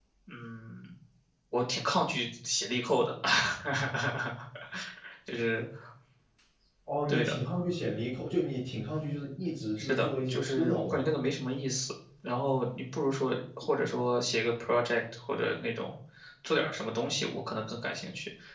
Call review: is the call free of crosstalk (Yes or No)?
No